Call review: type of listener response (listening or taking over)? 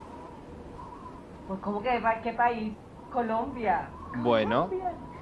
taking over